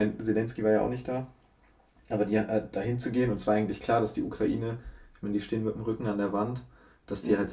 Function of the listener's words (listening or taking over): listening